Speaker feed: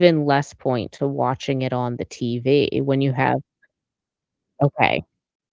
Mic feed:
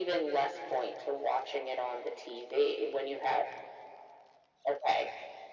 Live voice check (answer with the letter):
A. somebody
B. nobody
B